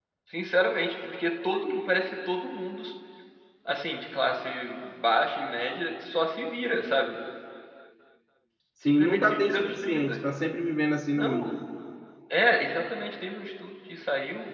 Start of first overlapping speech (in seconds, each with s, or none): 8.8 s